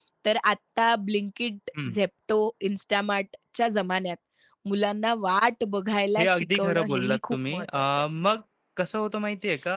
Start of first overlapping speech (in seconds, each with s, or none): 6.2 s